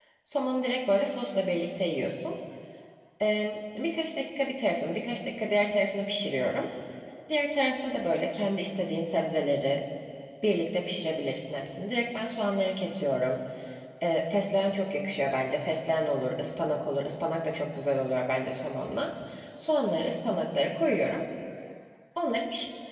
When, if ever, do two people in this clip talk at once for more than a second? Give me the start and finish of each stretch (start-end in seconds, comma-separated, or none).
none